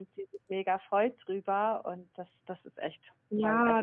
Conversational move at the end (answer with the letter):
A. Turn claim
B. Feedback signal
A